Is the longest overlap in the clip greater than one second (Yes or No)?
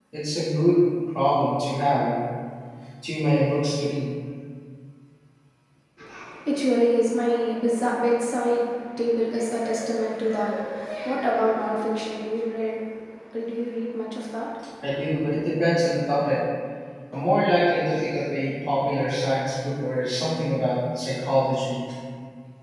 No